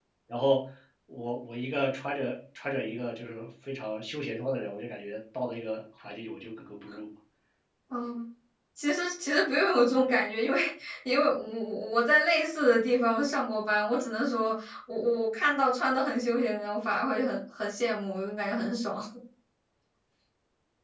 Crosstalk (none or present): none